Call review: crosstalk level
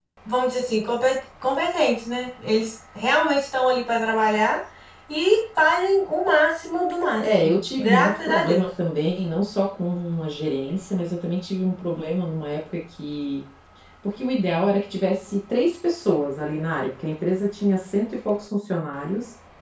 present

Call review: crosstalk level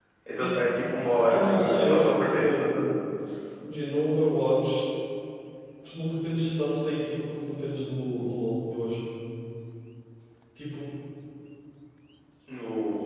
present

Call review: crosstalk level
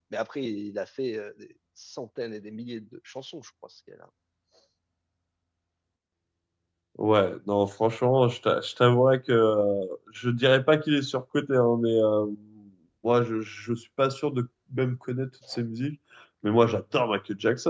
none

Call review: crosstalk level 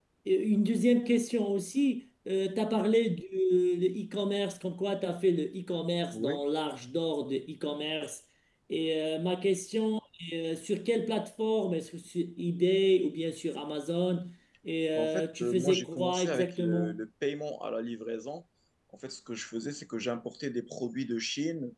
present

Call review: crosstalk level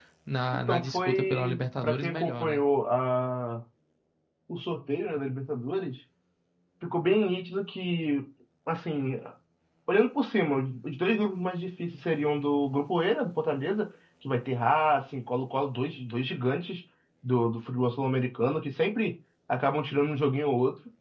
present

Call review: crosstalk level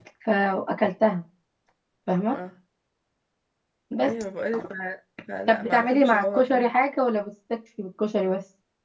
present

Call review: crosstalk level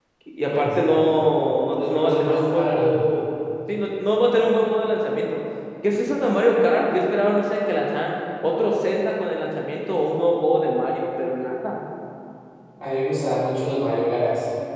present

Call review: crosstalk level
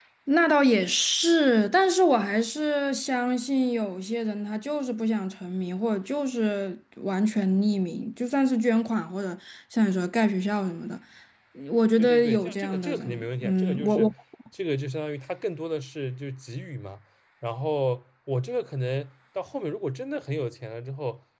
present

